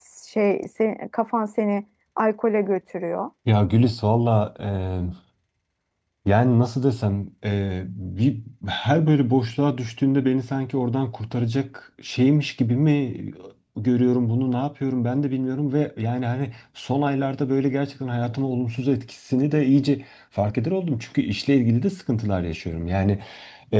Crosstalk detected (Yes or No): No